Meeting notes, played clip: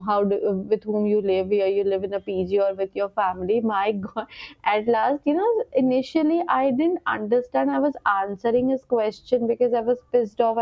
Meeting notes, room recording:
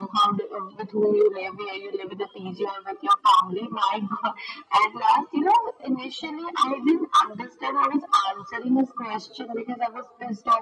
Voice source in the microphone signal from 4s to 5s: echo only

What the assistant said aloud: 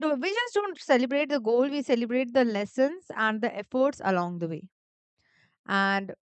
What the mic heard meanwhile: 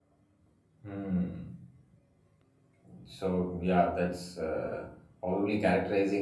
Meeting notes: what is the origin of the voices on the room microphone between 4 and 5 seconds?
user only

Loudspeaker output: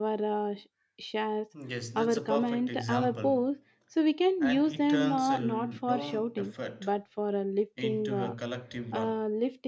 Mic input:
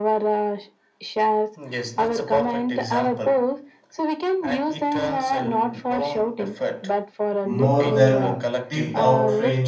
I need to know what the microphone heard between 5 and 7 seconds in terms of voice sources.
echo only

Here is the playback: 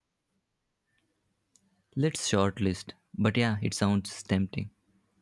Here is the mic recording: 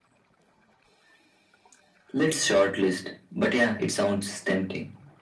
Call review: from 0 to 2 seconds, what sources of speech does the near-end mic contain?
neither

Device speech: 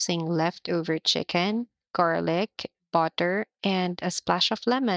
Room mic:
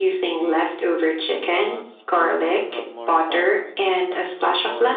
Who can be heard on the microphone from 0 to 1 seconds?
both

